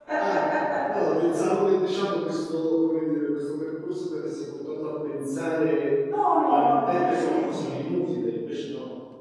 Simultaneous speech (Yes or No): Yes